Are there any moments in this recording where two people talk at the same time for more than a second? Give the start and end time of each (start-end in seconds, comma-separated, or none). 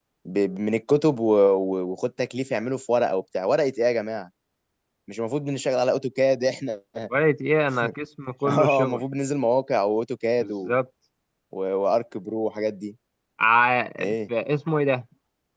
none